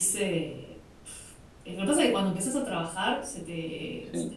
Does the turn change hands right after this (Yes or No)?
No